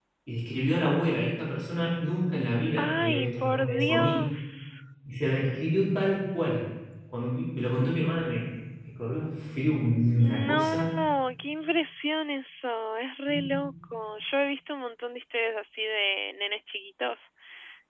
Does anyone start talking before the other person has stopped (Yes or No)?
Yes